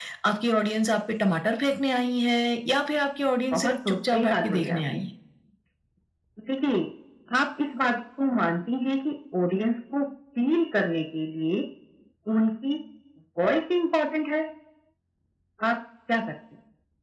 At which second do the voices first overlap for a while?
3.5 s

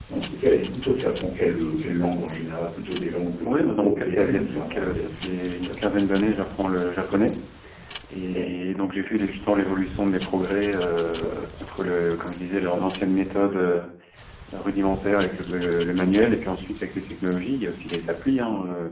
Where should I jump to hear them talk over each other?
3.4 s

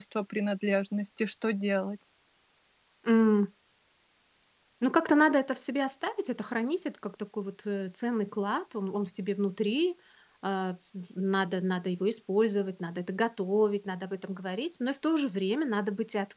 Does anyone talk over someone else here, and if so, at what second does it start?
none

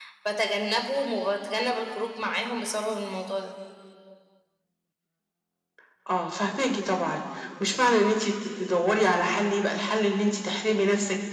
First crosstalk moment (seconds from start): none

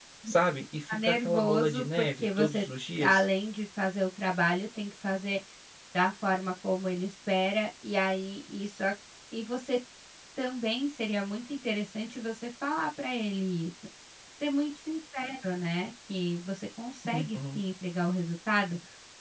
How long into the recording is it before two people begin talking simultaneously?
0.9 s

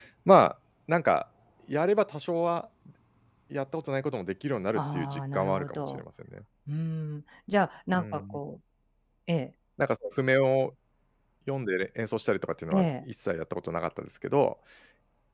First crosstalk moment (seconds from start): 4.8 s

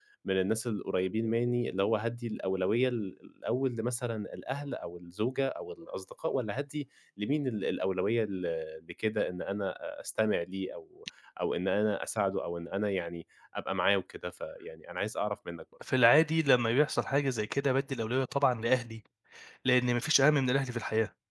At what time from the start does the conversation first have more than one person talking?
none

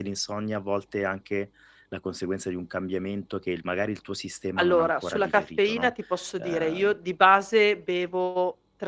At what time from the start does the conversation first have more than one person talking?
4.6 s

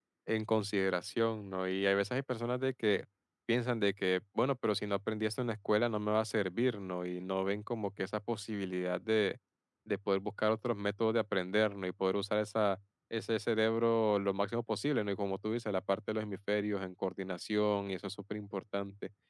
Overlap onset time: none

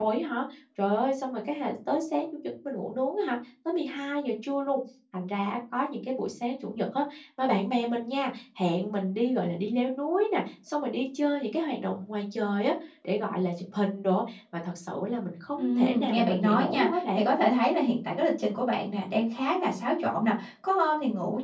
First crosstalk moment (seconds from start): 15.5 s

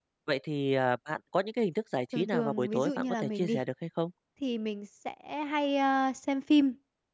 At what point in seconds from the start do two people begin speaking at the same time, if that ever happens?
2.1 s

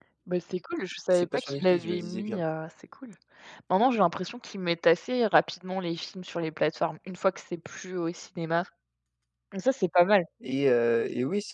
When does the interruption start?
1.1 s

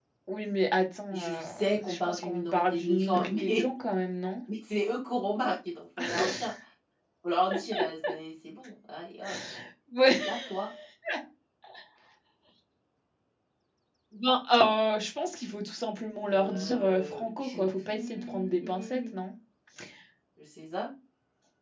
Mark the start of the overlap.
1.1 s

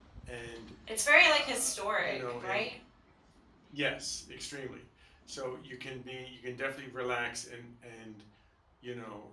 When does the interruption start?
1.3 s

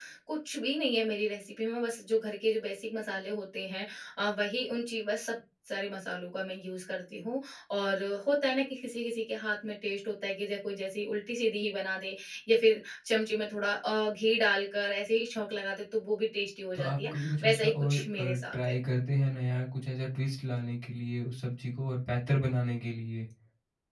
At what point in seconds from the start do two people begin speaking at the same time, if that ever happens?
16.7 s

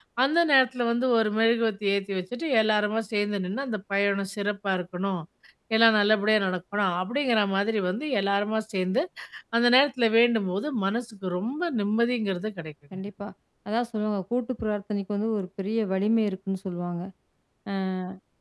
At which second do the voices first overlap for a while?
none

